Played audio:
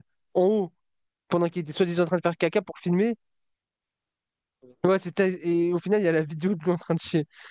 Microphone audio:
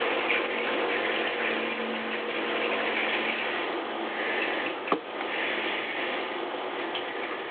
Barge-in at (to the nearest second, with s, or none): none